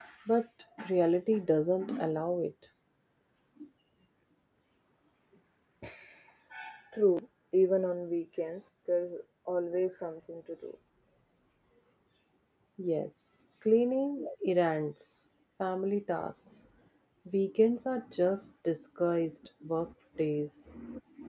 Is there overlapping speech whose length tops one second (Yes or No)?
No